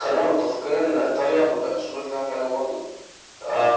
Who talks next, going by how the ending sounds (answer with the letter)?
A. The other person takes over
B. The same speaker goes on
B